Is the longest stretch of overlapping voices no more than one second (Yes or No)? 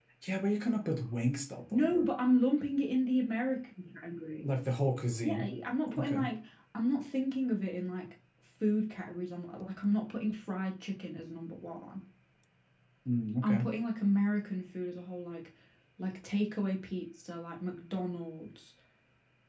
Yes